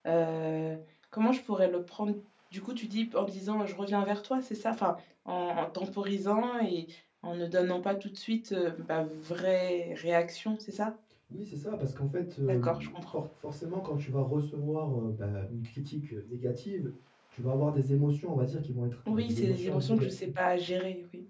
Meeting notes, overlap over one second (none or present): present